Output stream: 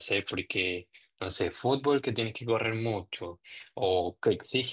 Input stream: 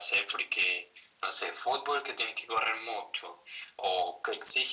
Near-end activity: none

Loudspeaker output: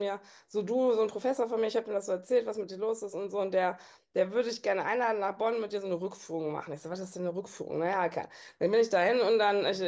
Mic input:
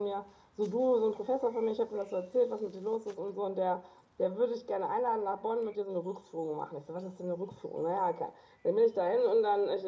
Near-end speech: none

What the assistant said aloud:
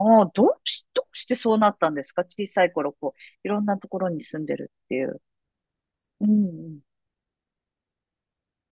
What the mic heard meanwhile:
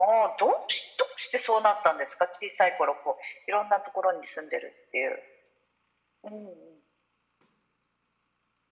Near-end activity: none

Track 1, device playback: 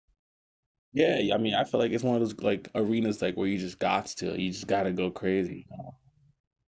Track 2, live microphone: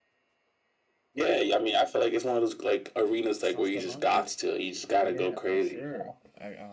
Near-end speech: present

